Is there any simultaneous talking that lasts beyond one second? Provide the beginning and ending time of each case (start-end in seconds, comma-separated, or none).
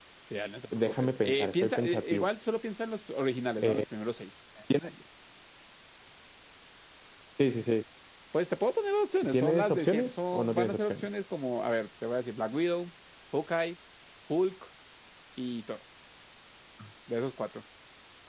0.7-2.3, 9.3-11.1